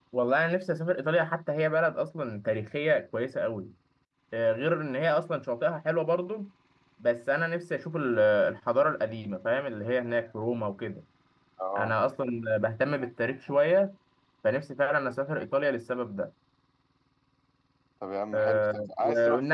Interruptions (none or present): present